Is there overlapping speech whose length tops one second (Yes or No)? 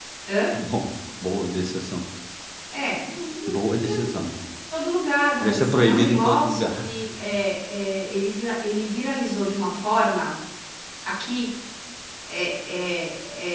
Yes